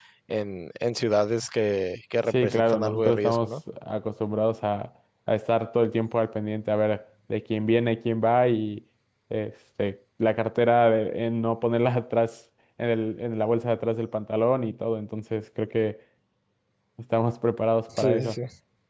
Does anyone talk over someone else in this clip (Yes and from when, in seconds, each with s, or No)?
Yes, from 2.3 s